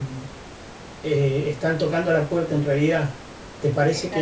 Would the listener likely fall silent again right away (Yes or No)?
Yes